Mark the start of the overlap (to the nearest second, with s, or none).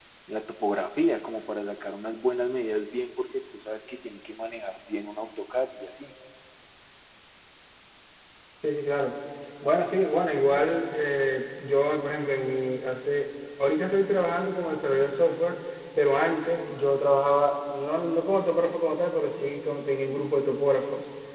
none